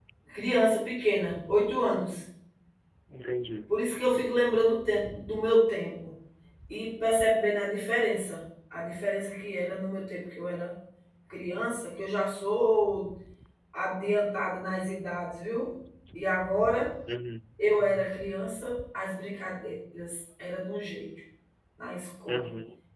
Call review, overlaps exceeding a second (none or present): none